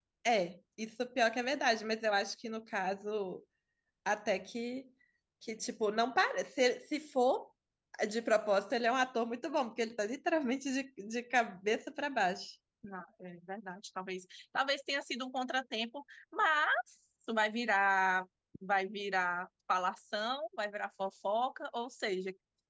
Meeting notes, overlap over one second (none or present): none